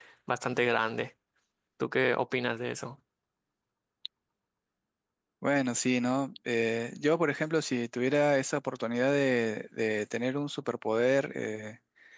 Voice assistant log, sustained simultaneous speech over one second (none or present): none